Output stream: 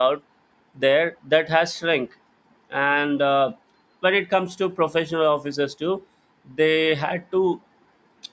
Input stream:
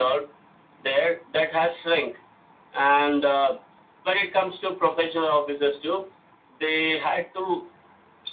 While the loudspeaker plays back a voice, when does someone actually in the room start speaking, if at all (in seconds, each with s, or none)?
none